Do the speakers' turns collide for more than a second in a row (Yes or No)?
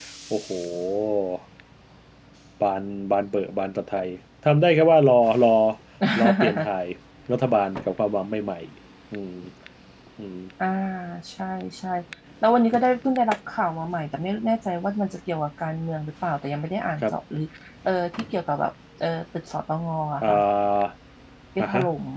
No